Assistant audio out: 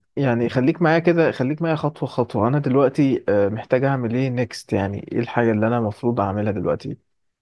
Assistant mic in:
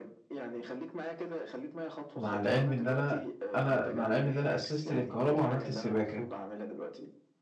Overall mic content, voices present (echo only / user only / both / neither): both